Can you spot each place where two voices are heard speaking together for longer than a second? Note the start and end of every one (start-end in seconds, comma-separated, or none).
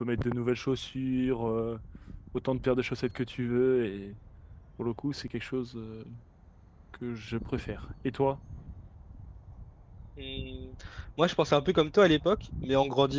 none